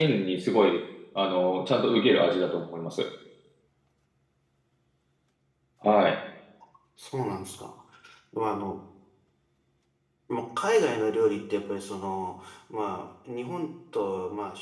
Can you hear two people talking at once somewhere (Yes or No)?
No